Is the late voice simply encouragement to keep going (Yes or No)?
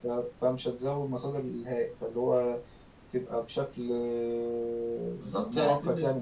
No